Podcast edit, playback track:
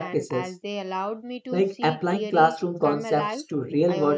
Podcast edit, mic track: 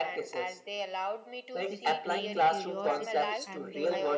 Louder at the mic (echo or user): echo